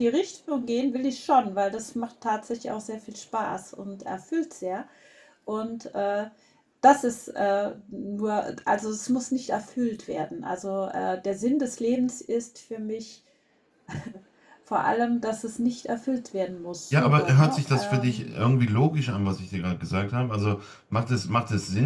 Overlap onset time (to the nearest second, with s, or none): 17 s